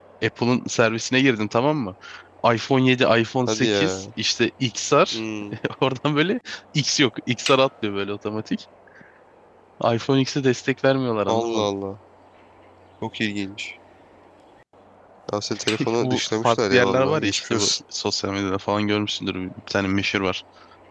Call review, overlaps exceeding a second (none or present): present